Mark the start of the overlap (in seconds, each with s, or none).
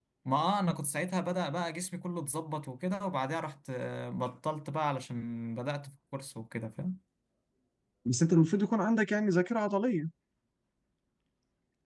none